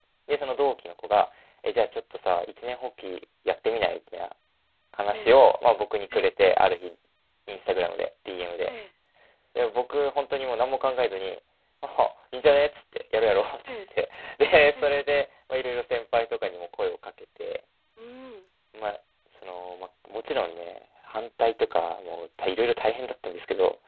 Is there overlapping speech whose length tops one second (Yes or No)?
No